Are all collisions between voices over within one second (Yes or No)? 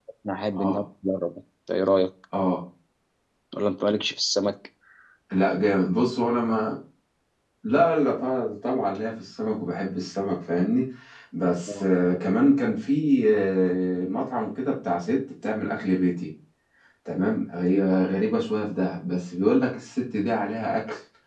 Yes